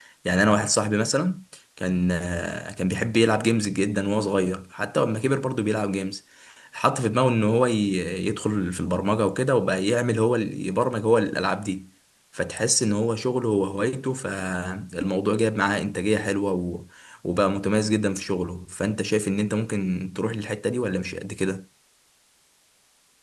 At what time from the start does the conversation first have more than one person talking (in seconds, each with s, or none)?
none